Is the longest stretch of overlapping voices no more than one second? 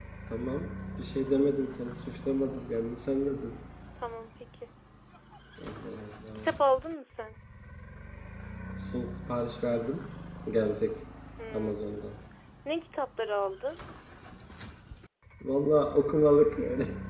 Yes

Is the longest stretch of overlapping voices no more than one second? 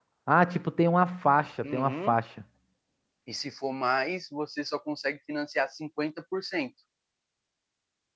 Yes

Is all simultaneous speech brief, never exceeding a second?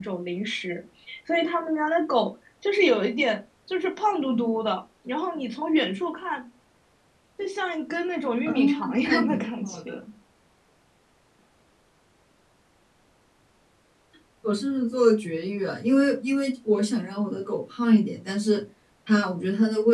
No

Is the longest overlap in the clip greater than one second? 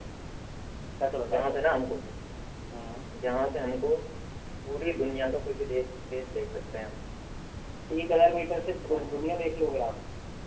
No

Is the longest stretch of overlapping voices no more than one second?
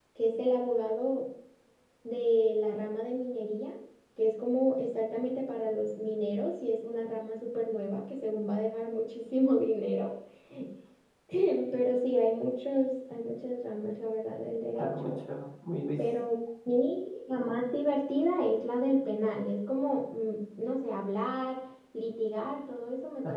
Yes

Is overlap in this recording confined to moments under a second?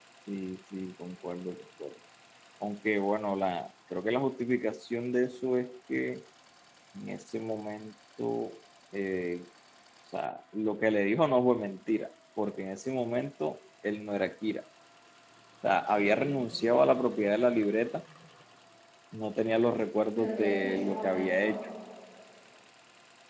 No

